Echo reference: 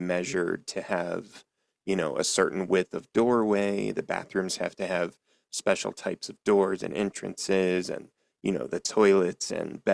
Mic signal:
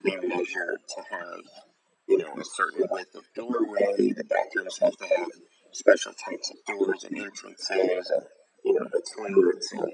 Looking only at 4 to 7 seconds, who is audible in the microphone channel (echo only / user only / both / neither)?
echo only